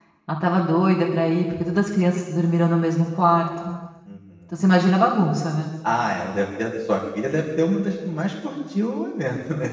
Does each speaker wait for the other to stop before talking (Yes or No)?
Yes